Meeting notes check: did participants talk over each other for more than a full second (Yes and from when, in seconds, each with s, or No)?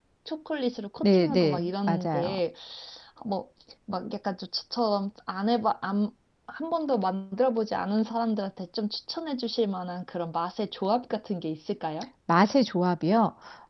Yes, from 1.0 s